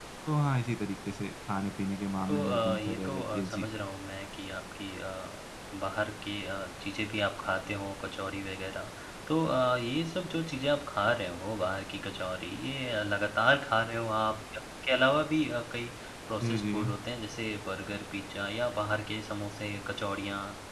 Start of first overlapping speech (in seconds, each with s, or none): 2.3 s